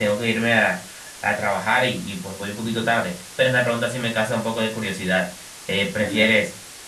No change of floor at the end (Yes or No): Yes